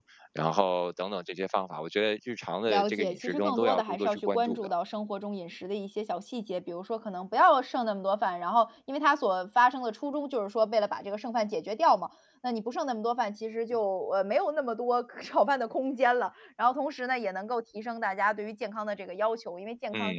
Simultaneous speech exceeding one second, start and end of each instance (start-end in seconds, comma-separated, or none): 2.7-4.7